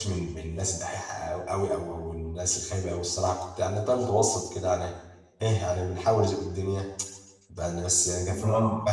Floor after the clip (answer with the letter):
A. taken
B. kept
B